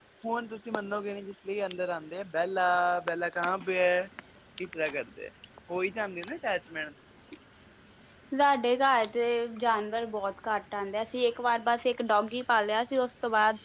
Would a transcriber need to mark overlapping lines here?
No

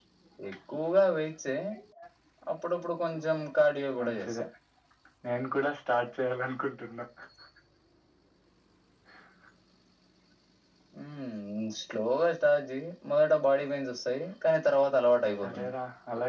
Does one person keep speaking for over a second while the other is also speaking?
No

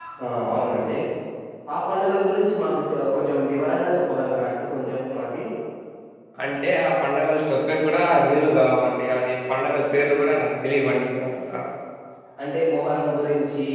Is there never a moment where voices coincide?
Yes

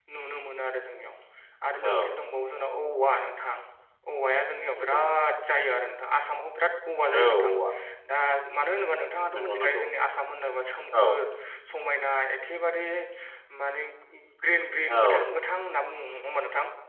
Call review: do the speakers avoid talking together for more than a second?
Yes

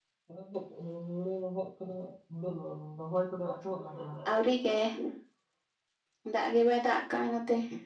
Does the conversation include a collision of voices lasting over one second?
No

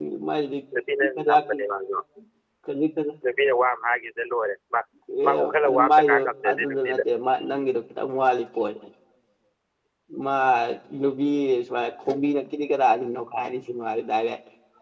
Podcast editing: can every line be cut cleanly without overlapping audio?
No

